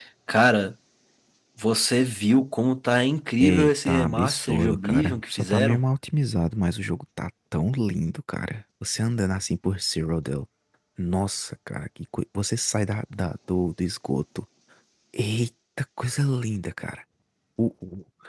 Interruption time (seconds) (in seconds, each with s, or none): 3.4 s